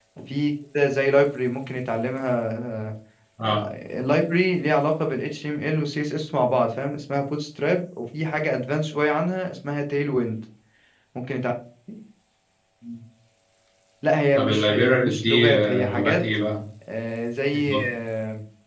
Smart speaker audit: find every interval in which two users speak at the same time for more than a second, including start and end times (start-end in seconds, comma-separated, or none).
14.4-16.2